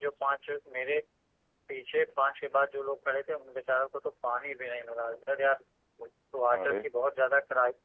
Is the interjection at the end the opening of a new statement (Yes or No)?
No